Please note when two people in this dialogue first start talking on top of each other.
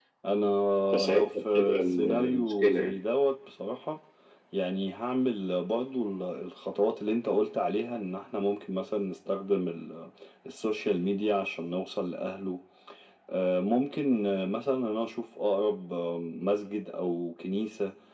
1.1 s

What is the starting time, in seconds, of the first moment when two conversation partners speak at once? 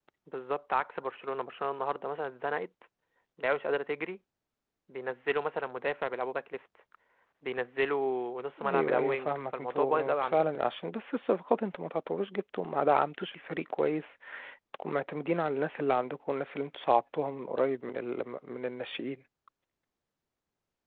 8.6 s

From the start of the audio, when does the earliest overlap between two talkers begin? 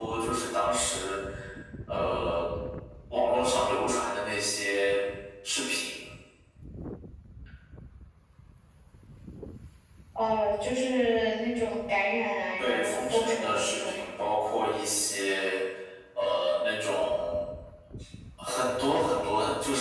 12.6 s

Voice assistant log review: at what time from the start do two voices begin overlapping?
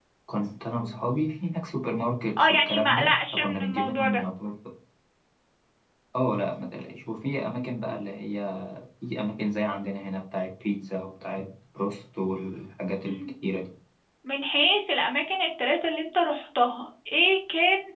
2.4 s

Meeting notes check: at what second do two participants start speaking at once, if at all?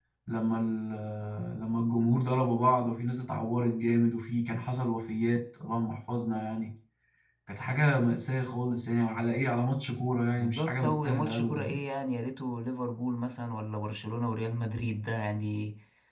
10.4 s

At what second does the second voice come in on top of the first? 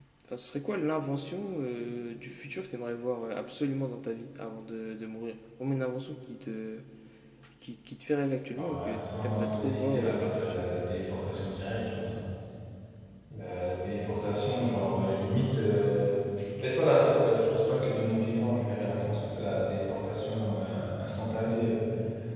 8.5 s

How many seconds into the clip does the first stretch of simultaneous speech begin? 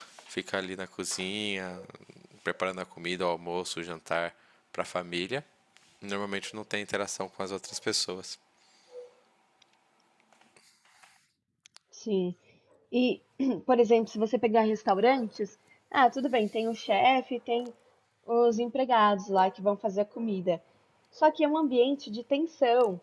none

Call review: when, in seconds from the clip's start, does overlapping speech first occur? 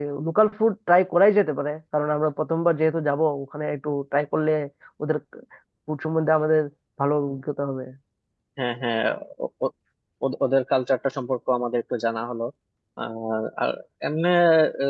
none

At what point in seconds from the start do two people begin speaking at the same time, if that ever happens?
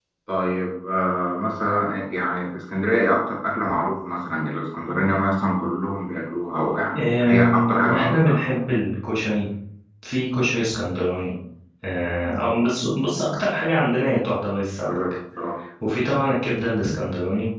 7.0 s

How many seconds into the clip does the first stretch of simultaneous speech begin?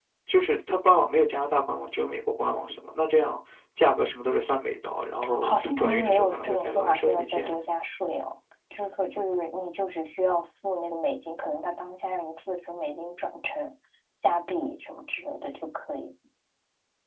5.3 s

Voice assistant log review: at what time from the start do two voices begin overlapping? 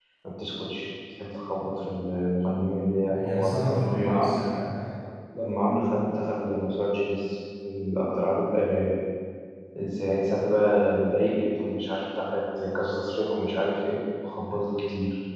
3.0 s

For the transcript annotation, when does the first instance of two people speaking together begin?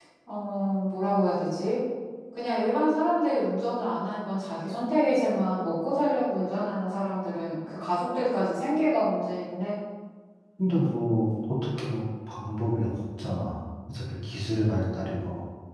none

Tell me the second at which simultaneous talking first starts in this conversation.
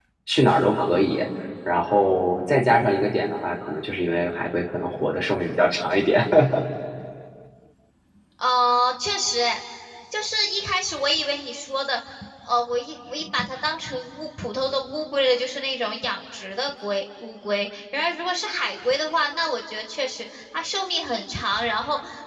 none

